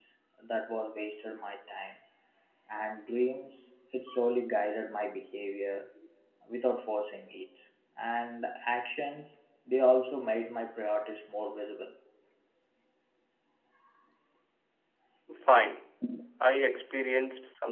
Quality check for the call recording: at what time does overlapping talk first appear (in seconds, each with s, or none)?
none